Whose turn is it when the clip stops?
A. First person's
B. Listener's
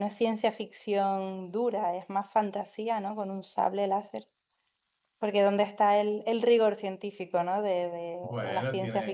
B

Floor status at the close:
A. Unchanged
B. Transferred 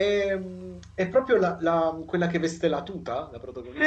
B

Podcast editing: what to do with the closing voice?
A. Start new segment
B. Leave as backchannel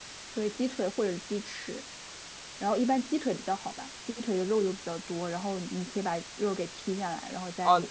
A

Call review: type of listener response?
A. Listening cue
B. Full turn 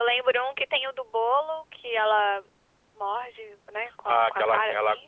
B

